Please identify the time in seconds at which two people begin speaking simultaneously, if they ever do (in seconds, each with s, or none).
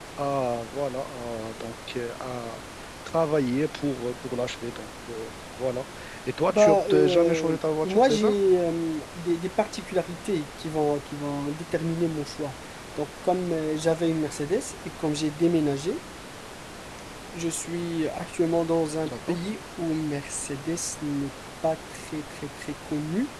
6.5 s